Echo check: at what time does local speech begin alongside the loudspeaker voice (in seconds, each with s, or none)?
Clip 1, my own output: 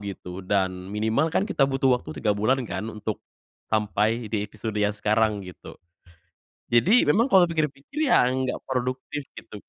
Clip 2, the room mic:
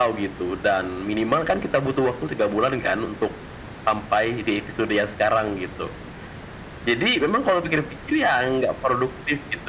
none